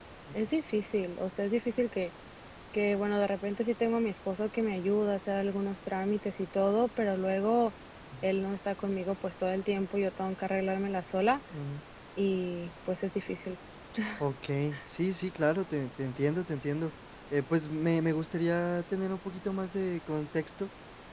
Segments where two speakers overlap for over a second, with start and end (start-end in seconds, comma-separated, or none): none